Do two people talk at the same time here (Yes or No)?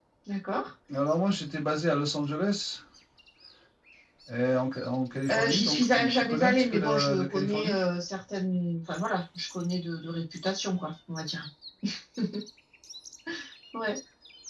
Yes